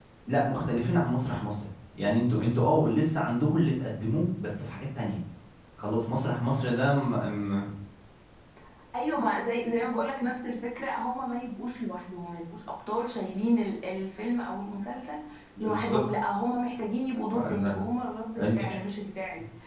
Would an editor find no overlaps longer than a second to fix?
Yes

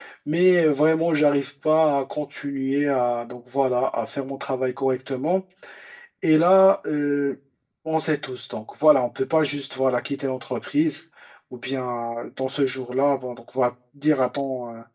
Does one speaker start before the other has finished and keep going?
No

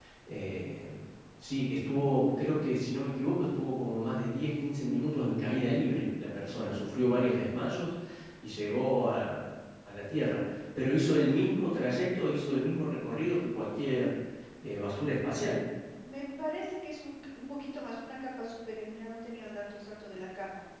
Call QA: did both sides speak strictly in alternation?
Yes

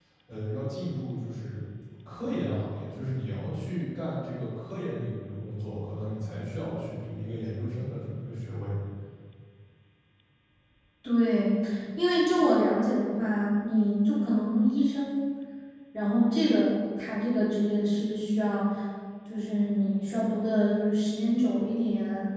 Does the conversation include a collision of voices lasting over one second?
No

